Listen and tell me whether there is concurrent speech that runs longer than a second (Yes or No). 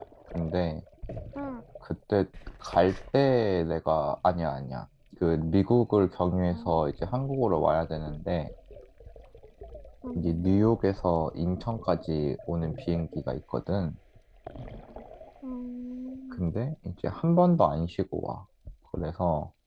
No